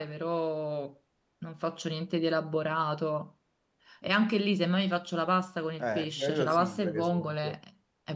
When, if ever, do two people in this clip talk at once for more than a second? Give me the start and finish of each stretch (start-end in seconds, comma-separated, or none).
5.8-7.5